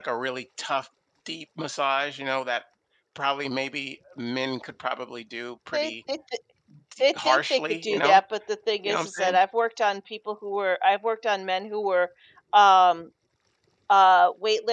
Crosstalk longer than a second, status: present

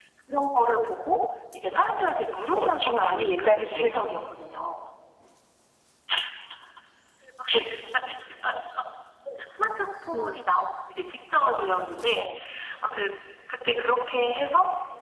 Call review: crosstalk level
present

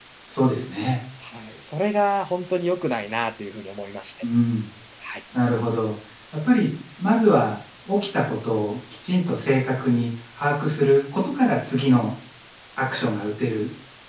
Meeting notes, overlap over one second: none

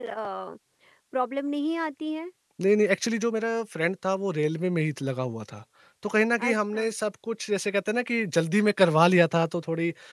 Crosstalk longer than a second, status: none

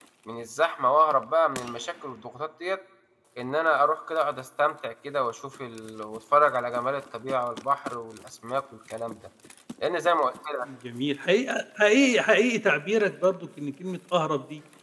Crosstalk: none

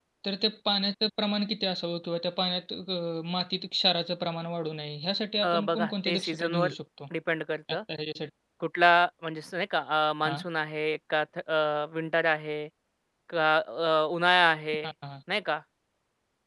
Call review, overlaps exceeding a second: present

